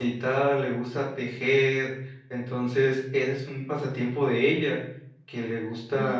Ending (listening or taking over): listening